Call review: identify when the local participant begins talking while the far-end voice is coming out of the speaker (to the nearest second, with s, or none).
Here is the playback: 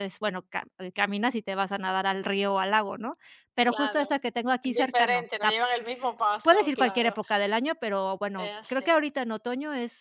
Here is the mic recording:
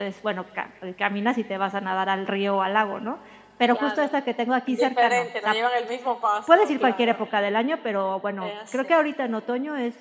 none